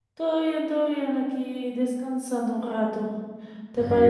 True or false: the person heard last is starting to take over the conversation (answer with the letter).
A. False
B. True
A